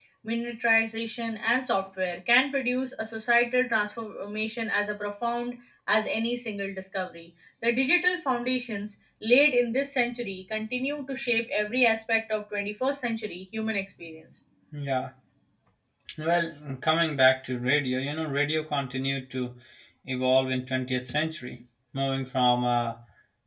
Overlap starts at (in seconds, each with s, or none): none